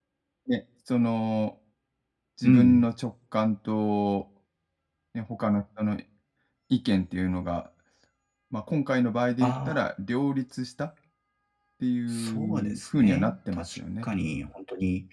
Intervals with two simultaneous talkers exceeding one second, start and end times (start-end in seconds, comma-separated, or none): 12.1-14.1